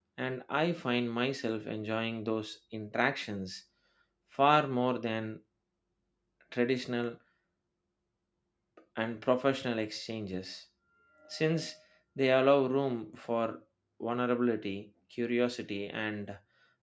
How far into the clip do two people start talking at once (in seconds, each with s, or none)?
none